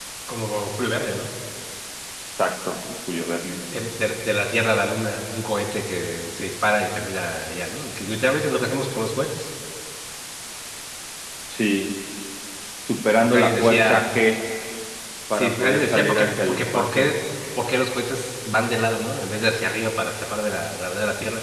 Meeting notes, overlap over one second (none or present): present